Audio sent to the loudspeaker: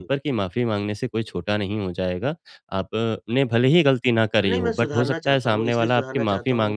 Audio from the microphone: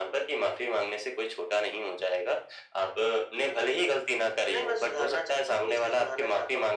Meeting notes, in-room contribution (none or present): none